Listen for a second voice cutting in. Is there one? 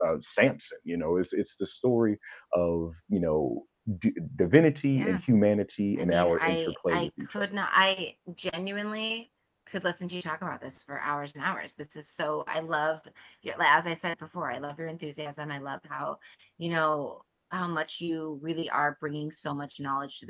Yes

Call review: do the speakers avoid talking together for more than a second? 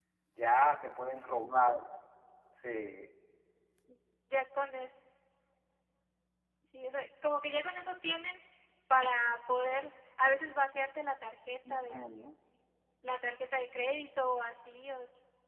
Yes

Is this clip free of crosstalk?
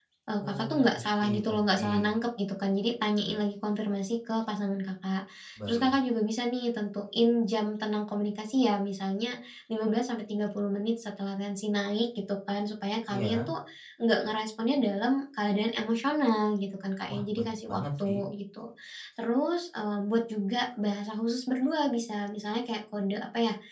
No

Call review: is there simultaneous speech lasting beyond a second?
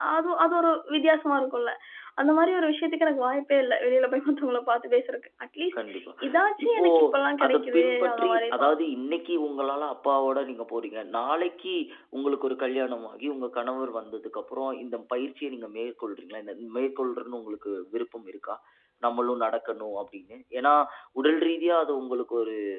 Yes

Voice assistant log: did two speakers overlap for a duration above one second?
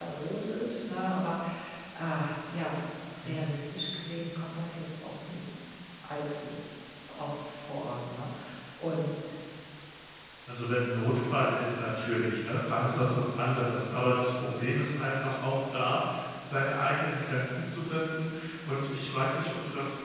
No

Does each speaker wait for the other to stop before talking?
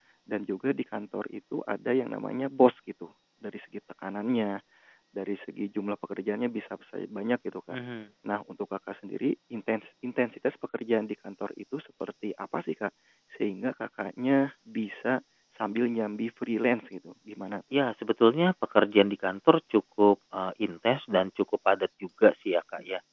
Yes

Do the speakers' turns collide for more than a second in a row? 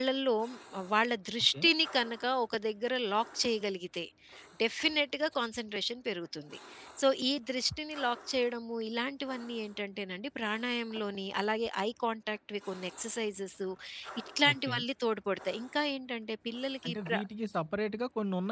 No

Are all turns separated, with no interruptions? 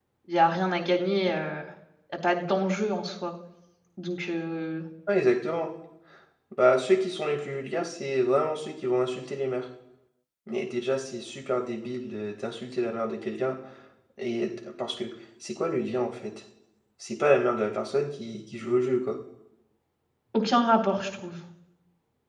Yes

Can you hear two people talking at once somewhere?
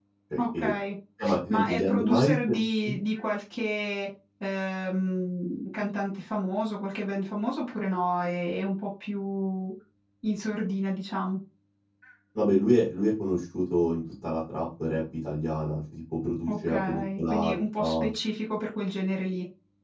Yes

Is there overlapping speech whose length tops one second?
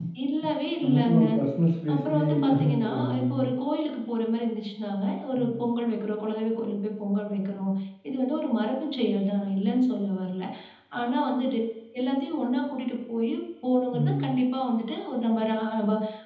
Yes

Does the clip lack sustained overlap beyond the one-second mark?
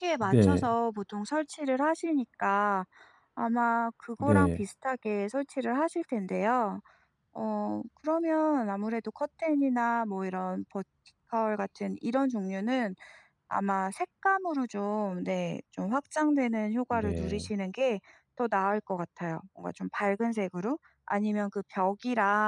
Yes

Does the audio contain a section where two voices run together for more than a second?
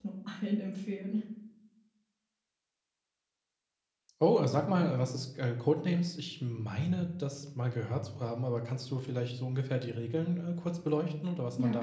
No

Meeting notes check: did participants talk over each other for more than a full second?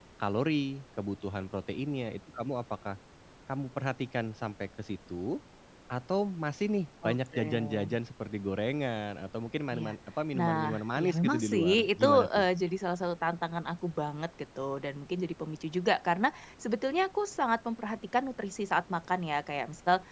Yes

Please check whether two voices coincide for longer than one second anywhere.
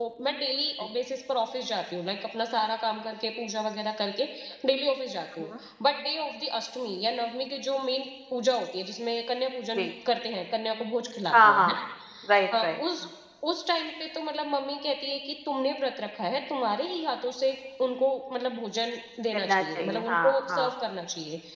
Yes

